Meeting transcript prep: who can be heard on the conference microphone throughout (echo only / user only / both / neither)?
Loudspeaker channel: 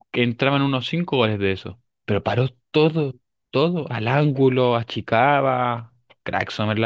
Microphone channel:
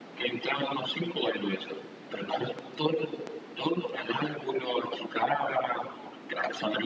echo only